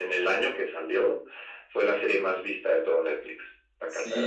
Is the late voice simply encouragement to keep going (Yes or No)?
No